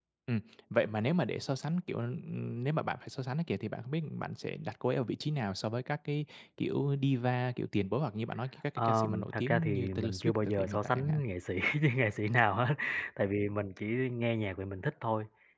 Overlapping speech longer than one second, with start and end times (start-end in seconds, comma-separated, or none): 8.8-11.2